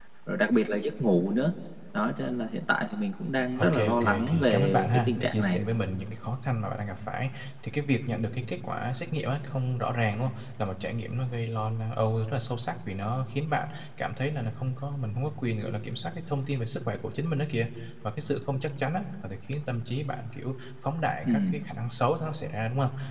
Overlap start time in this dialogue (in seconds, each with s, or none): 3.6 s